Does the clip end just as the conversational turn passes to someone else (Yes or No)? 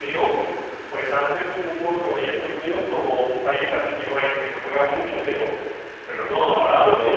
Yes